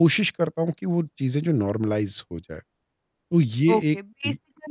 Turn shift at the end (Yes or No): Yes